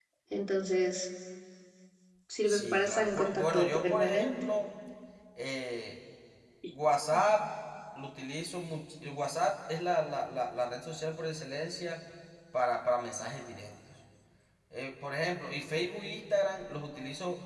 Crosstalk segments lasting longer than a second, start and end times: 2.5-4.3

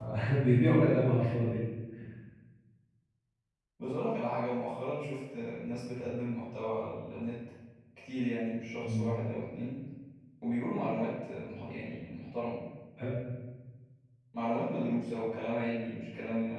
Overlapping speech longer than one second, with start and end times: none

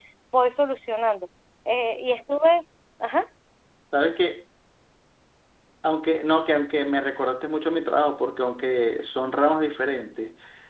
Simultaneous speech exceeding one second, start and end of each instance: none

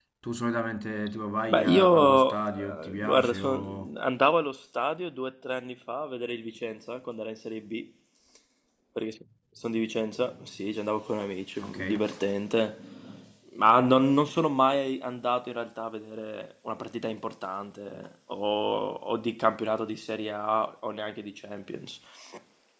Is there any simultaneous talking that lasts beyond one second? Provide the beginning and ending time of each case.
1.5-3.9

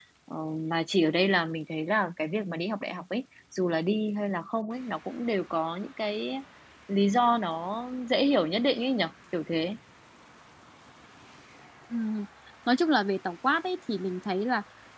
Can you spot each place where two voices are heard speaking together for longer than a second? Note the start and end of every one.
none

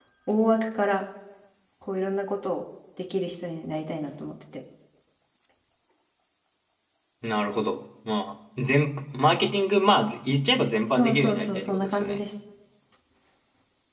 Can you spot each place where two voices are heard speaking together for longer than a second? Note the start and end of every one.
10.9-12.2

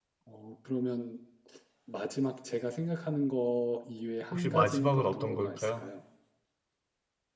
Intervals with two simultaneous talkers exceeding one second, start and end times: 4.3-5.8

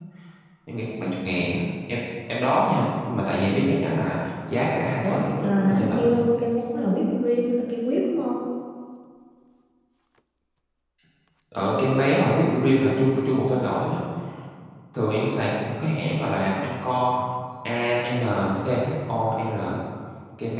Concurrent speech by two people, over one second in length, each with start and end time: 5.0-6.2

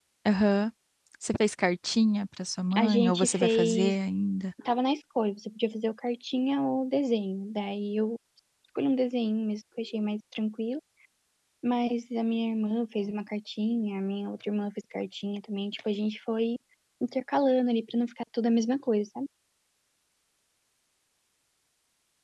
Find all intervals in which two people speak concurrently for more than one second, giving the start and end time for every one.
2.7-4.0

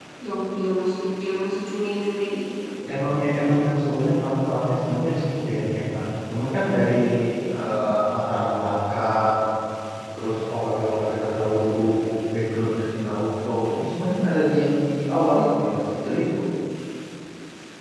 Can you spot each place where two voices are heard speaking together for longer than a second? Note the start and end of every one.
none

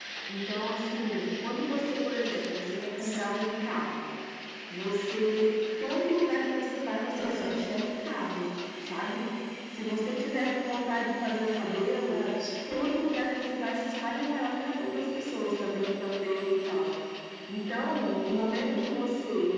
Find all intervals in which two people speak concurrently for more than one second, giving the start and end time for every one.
none

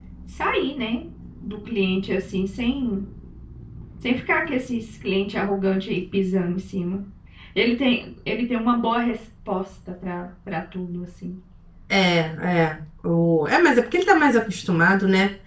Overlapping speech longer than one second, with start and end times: none

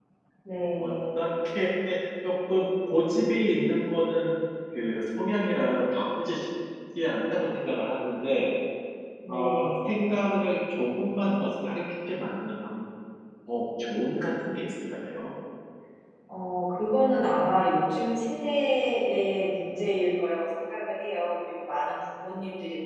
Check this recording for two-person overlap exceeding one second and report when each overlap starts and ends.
none

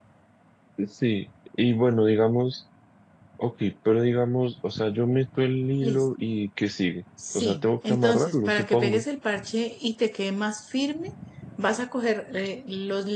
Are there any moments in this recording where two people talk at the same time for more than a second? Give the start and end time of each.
7.4-9.0

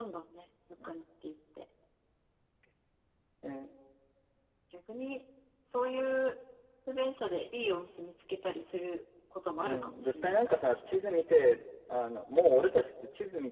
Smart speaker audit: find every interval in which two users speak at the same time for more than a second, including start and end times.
9.6-10.8

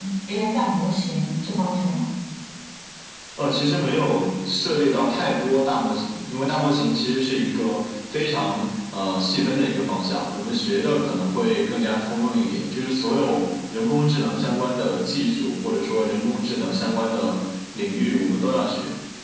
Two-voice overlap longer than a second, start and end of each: none

